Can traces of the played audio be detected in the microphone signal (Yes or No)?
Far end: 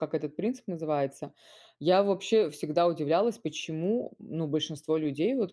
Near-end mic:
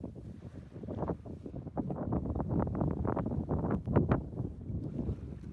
No